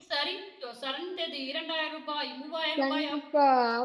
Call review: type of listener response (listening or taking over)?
taking over